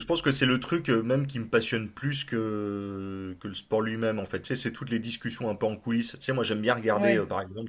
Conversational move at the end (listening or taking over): listening